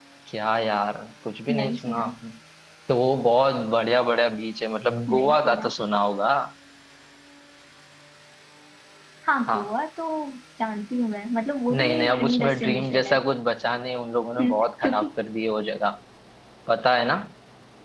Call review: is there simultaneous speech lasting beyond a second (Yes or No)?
Yes